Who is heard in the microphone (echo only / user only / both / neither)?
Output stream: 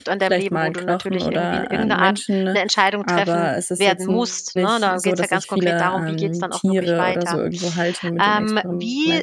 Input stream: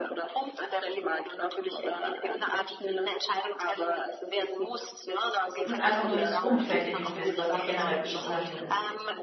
both